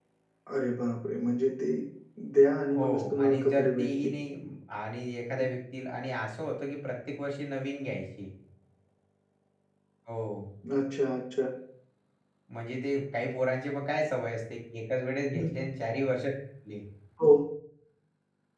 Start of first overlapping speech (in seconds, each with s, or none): 2.8 s